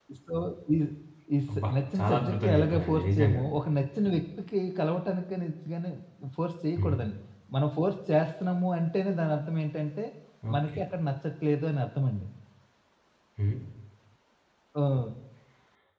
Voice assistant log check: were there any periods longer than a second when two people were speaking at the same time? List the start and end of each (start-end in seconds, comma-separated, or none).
1.5-3.4